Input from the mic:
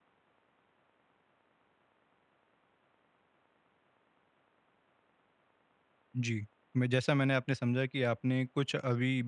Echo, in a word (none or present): none